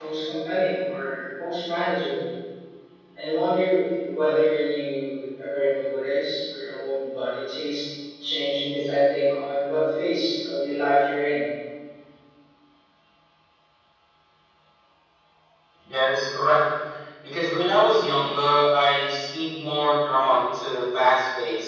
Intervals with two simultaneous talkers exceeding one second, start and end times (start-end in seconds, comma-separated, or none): none